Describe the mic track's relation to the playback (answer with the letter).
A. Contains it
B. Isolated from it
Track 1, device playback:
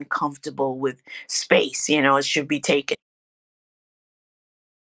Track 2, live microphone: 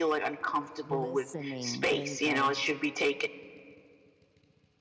A